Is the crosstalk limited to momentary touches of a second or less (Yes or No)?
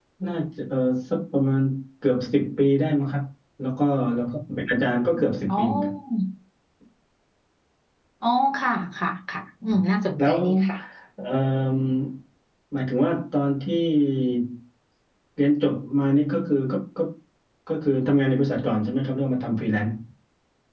Yes